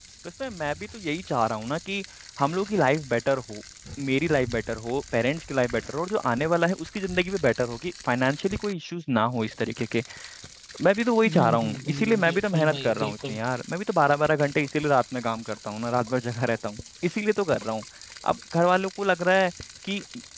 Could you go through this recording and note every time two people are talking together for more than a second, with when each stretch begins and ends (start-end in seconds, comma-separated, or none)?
11.2-13.4